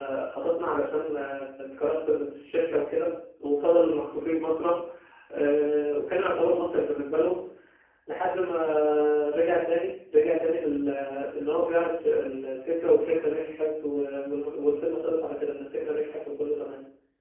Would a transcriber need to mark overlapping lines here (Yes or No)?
No